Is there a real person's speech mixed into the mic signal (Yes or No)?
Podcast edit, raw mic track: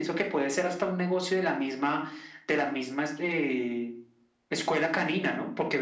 No